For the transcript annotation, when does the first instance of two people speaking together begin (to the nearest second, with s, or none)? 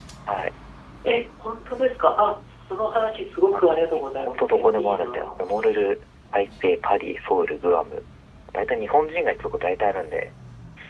3 s